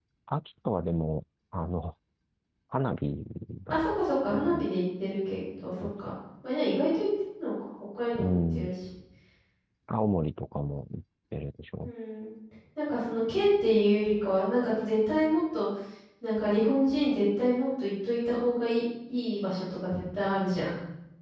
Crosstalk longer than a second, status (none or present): none